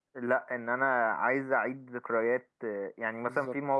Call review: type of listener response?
listening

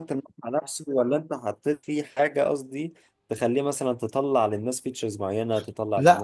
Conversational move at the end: taking over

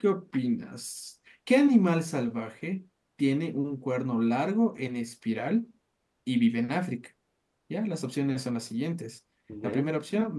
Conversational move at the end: listening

